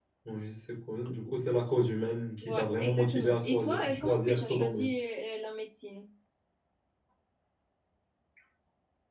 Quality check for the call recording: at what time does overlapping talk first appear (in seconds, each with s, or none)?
2.4 s